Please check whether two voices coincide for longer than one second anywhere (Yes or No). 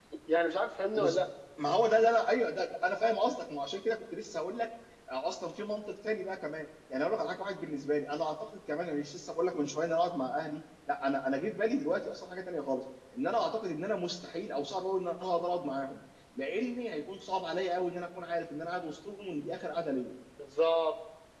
No